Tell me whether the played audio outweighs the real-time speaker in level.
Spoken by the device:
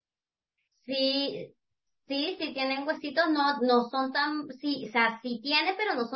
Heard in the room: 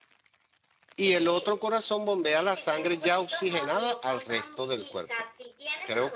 No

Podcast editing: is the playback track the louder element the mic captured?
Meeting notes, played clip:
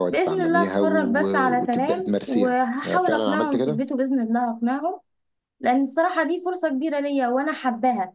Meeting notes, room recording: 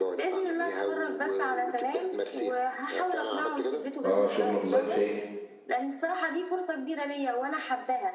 No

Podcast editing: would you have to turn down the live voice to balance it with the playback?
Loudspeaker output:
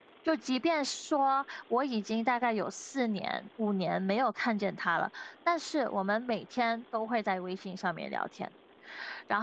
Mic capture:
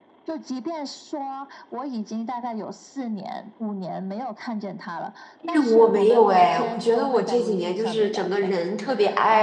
Yes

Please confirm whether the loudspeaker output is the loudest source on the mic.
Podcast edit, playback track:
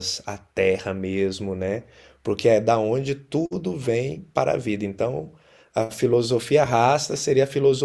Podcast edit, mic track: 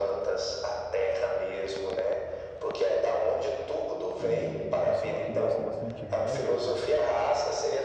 Yes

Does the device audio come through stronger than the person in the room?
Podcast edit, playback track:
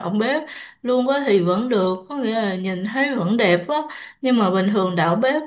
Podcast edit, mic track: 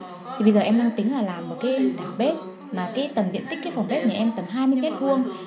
No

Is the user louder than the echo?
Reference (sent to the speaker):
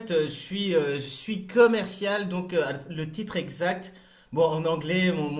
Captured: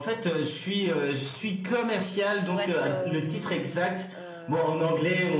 No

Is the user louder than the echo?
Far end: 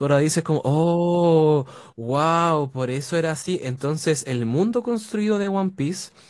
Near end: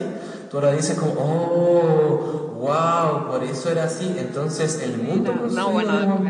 No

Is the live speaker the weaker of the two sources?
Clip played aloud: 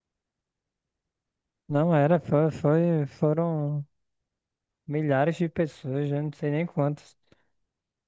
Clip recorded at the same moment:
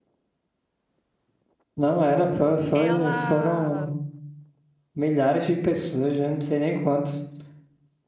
Yes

